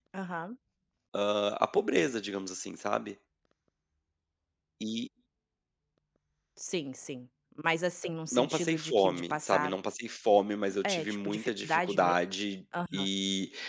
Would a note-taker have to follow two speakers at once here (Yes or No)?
Yes